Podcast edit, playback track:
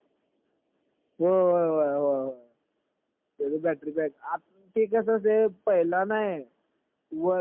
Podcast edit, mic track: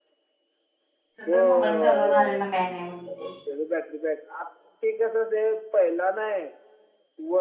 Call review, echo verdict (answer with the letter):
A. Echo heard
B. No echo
A